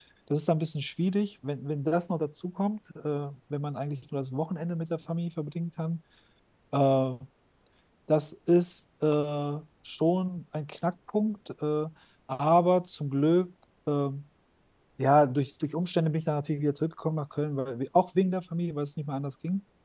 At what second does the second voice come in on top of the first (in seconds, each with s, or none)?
none